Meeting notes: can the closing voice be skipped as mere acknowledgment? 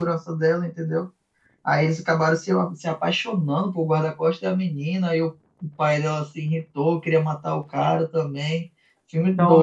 No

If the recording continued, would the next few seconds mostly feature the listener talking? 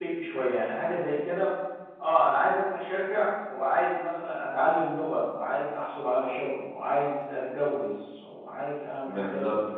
Yes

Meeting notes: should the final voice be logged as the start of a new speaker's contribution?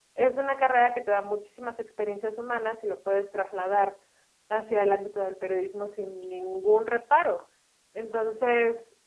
No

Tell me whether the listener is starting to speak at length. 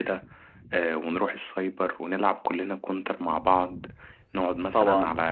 No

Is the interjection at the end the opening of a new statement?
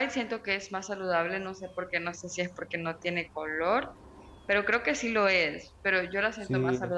No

